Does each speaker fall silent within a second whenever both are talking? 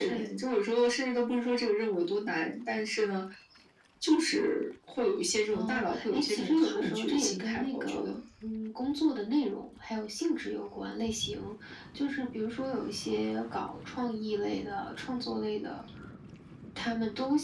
No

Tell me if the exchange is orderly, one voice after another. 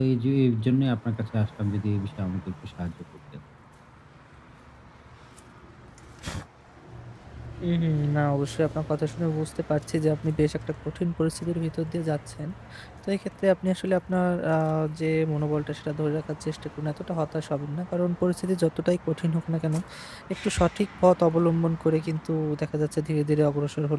Yes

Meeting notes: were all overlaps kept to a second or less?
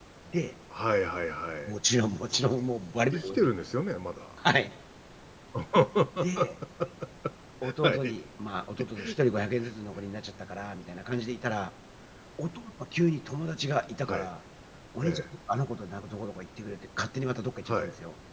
Yes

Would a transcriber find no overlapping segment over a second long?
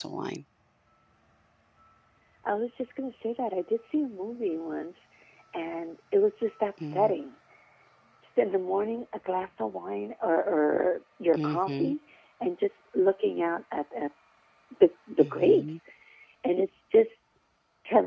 Yes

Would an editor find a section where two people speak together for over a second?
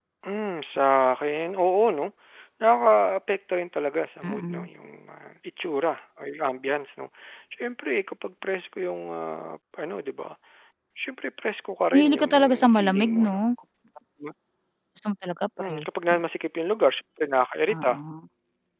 Yes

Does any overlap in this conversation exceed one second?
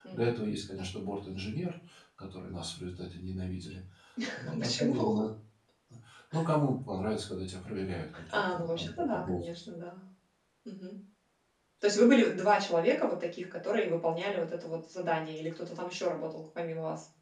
Yes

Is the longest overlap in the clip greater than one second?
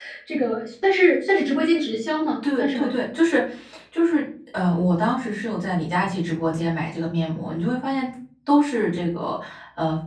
No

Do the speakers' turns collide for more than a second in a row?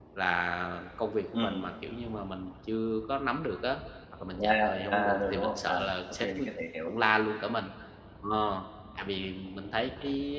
Yes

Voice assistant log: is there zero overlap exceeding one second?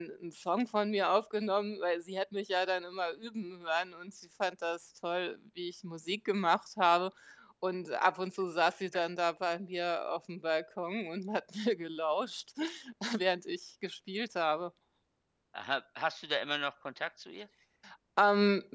Yes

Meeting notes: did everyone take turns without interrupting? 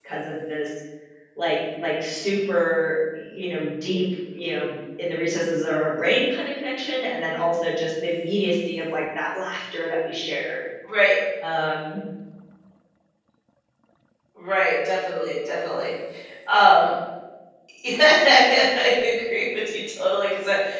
Yes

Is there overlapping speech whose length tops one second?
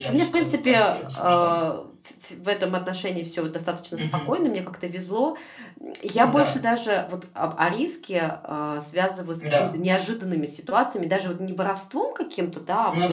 Yes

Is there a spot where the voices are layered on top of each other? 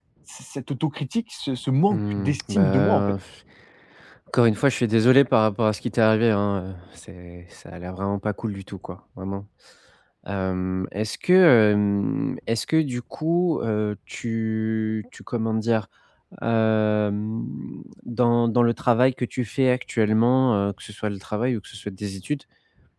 Yes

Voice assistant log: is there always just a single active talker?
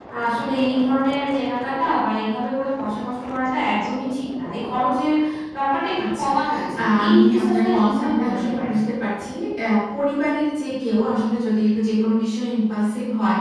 No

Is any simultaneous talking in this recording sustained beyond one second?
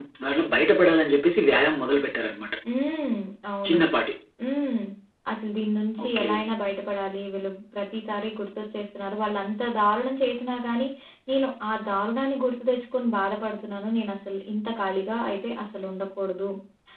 No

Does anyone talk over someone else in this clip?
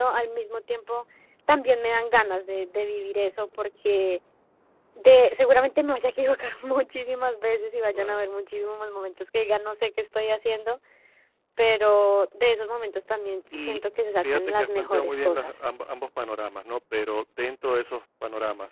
Yes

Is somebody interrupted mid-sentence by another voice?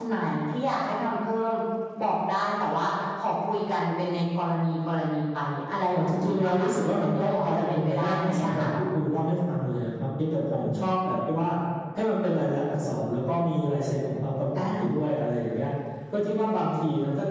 Yes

